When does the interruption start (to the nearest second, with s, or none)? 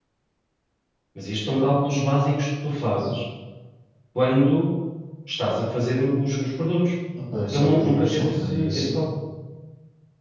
8 s